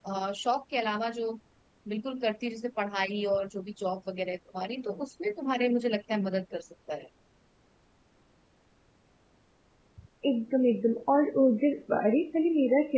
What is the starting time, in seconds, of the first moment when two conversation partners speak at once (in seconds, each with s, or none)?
none